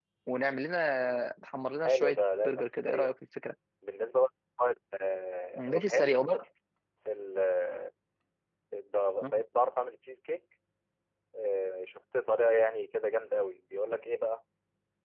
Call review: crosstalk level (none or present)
present